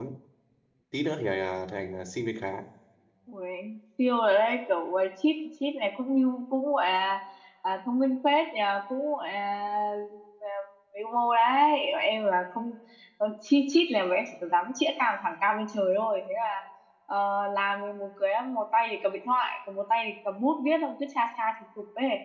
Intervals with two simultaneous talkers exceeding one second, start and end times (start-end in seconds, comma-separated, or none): none